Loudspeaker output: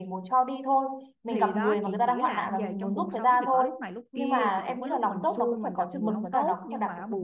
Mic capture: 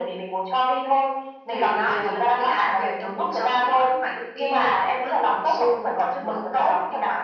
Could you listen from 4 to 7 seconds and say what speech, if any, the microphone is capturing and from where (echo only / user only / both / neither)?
echo only